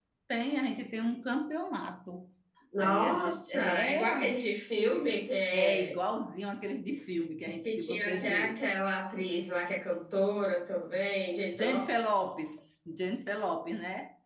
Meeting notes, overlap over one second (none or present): present